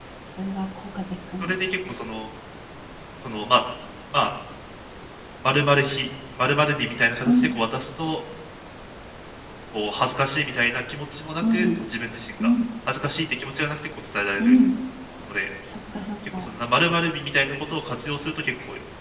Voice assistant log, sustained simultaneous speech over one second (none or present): none